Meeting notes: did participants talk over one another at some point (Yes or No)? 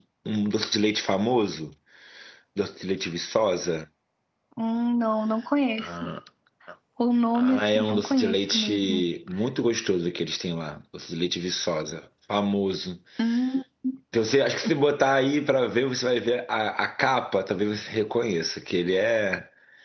Yes